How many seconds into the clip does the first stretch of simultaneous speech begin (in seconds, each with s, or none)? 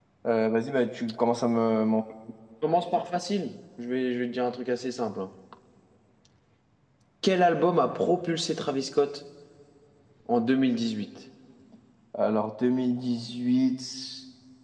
none